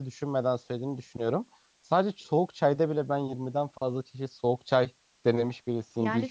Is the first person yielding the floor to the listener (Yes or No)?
Yes